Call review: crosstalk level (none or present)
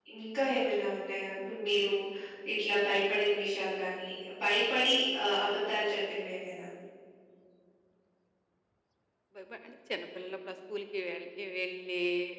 none